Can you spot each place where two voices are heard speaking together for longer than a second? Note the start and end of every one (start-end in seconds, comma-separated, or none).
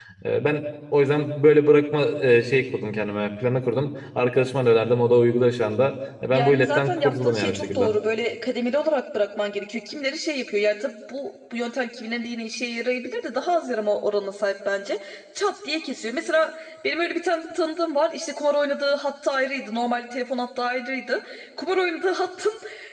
6.3-7.9